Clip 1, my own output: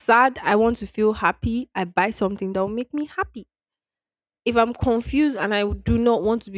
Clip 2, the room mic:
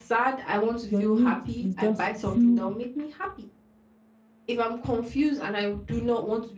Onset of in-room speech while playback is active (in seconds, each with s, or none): 0.9 s